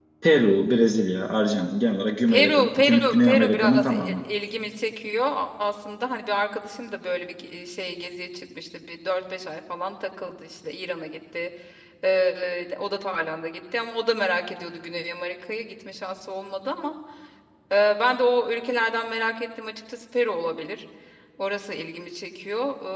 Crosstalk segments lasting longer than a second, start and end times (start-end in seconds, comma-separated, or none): 2.3-4.2